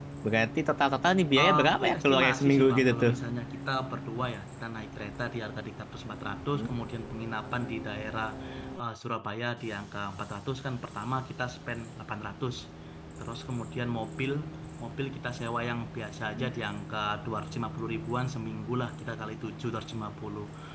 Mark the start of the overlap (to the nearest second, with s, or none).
2 s